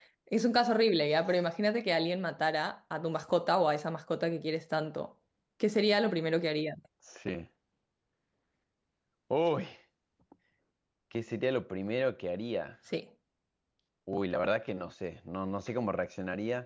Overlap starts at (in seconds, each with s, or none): none